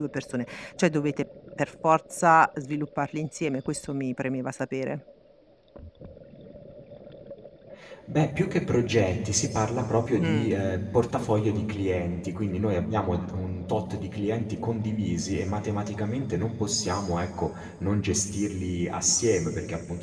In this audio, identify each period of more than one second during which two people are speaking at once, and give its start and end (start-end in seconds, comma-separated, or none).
none